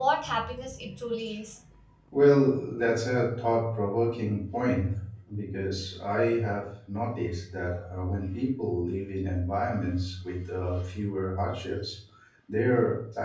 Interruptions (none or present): none